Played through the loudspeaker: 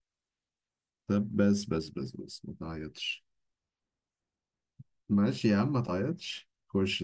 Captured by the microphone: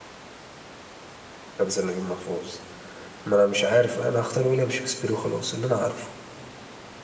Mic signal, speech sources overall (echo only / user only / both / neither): user only